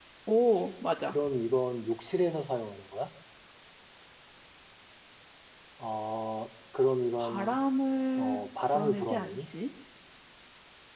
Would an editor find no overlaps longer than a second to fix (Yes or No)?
No